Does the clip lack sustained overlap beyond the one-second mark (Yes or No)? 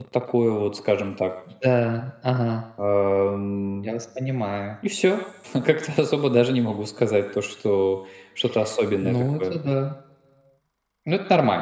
Yes